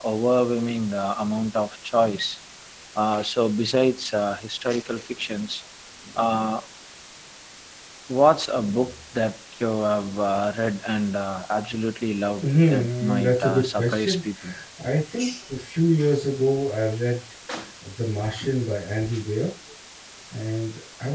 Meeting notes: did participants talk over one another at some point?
Yes, from 12.4 s

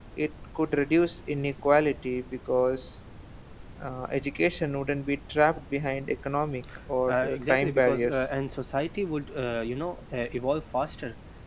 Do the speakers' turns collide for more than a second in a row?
Yes, from 7.1 s

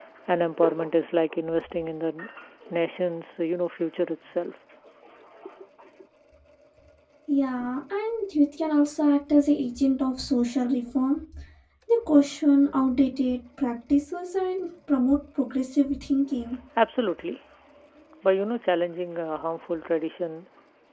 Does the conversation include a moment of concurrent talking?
No

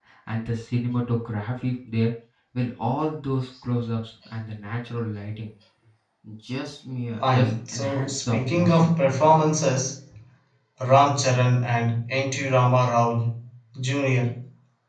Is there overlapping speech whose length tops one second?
Yes, from 7.2 s

